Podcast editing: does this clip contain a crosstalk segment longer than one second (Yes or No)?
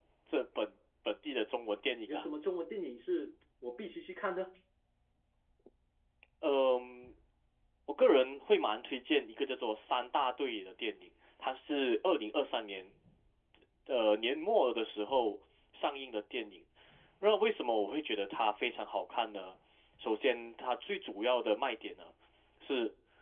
No